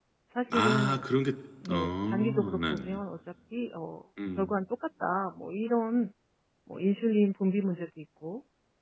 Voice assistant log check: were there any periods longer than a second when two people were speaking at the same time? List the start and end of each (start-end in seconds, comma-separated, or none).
1.7-3.0